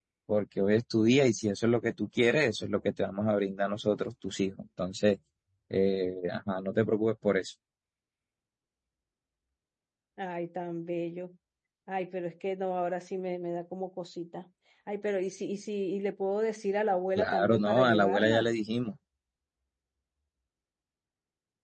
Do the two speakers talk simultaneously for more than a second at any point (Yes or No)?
Yes